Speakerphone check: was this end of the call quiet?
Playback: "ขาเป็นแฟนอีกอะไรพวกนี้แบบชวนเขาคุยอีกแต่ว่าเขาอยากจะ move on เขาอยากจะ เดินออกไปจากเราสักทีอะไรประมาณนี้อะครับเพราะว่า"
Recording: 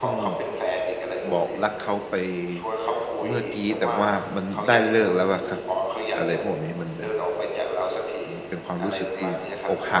No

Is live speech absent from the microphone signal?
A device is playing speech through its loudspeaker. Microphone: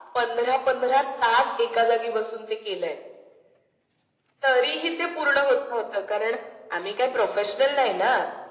Yes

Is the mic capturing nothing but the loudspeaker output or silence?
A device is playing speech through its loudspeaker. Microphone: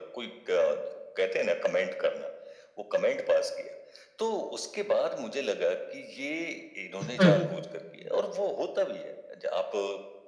No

